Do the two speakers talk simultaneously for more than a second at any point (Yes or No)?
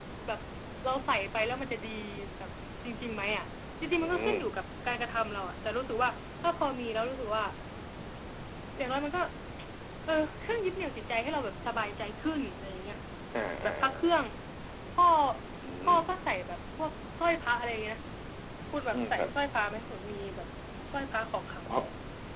No